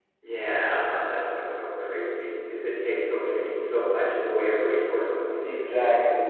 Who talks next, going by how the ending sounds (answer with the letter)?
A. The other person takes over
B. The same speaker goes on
A